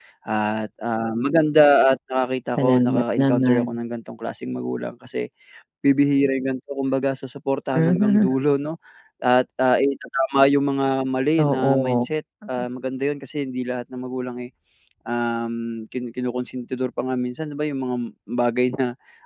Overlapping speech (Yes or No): Yes